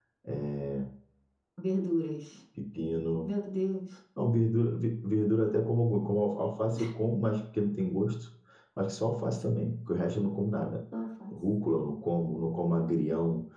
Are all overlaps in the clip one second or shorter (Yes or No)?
Yes